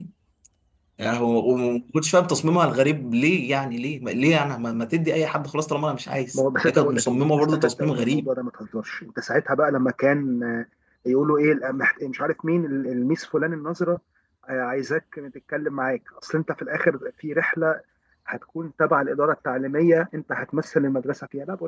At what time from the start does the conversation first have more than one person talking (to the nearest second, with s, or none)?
6 s